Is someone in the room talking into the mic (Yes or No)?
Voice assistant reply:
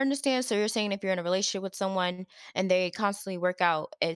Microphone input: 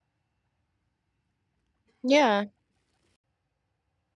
Yes